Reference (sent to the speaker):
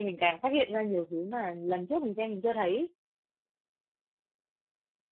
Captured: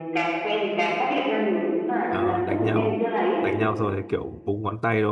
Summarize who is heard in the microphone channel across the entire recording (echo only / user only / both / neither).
both